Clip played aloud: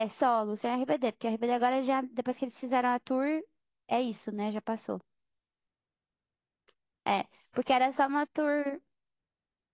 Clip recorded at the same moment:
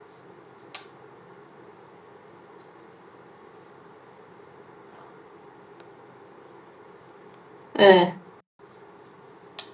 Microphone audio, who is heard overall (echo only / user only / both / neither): user only